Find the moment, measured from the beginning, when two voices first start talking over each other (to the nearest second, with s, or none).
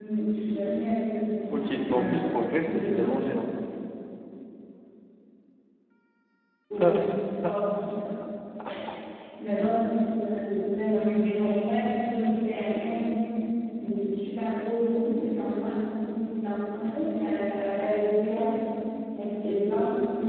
1 s